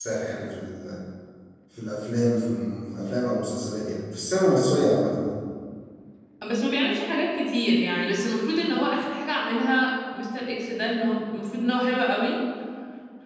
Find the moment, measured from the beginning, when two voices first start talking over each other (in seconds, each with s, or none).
none